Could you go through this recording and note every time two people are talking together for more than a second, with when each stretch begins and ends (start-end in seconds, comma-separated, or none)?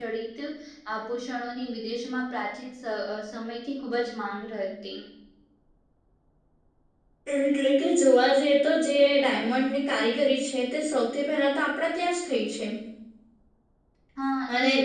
none